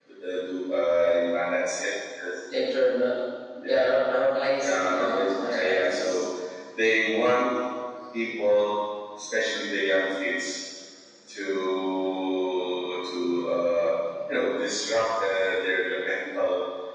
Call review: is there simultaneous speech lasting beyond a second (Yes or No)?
Yes